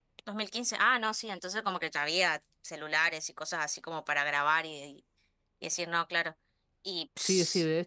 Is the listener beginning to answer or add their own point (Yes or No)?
Yes